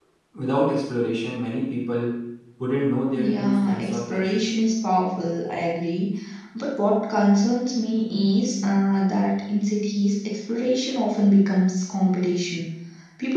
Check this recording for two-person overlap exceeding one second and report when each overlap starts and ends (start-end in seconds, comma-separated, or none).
3.1-4.4